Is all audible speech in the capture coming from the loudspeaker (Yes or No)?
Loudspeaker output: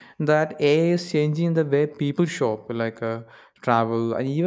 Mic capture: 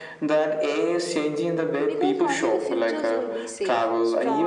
No